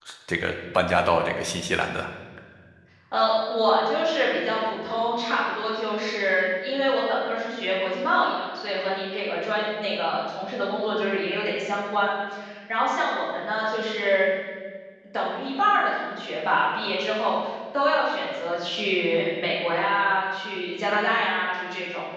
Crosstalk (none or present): none